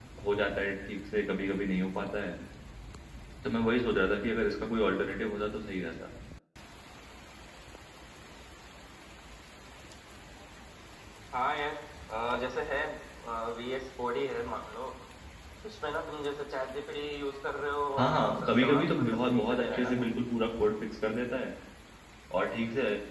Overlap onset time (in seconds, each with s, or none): 18.0 s